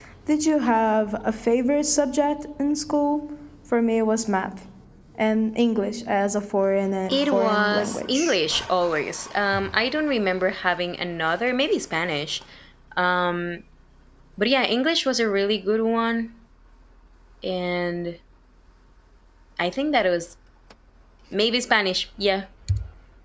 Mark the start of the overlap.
7.1 s

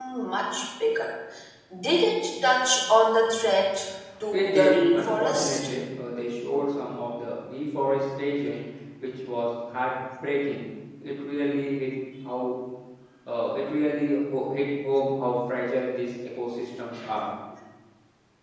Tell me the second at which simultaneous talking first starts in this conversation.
4.3 s

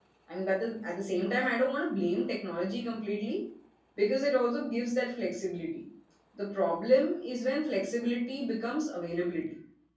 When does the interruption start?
none

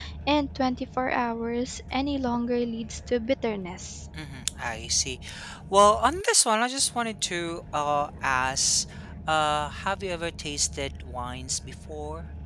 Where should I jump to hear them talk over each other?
none

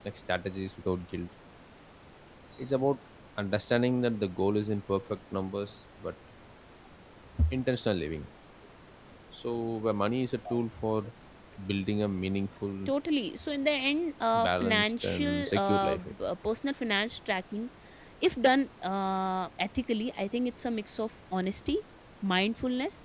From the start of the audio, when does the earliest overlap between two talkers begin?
14.3 s

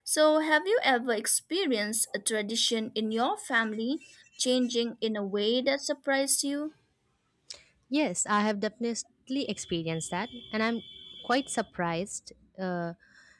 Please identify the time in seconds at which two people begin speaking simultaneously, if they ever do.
none

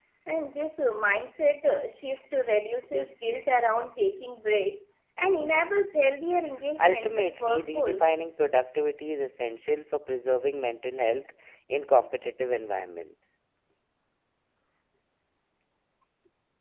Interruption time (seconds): 6.8 s

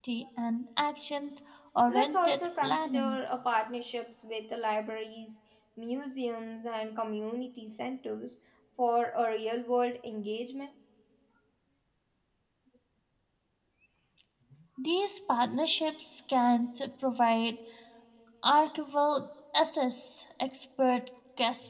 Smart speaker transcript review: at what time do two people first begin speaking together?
1.9 s

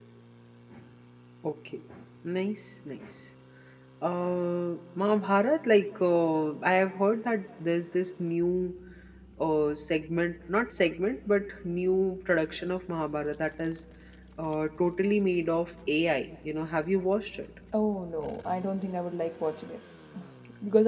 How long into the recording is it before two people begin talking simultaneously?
none

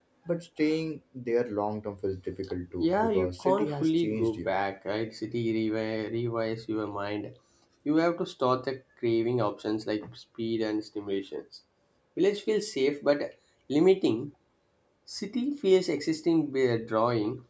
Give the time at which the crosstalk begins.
2.8 s

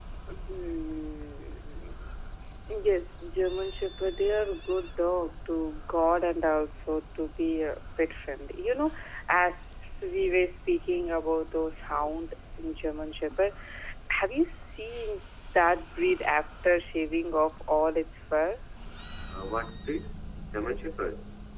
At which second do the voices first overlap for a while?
none

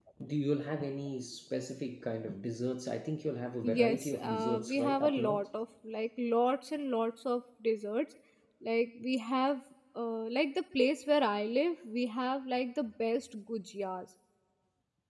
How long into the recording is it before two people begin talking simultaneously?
3.6 s

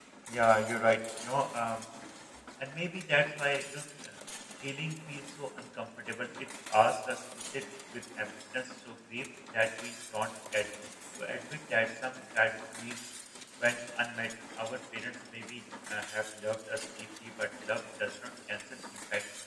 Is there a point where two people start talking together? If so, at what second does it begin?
none

